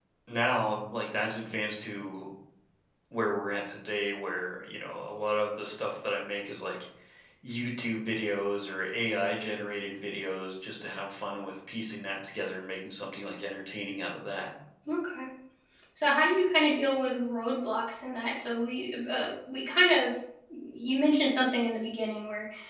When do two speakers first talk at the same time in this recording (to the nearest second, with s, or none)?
none